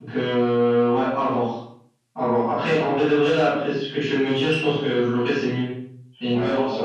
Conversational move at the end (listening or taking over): taking over